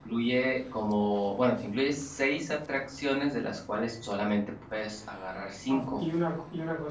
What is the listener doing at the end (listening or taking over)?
taking over